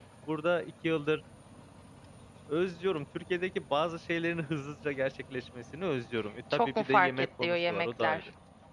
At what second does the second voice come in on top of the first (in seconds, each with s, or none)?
6.5 s